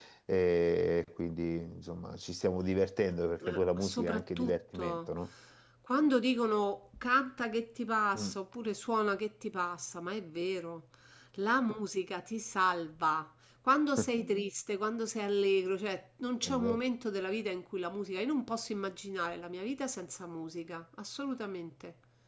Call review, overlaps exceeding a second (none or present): present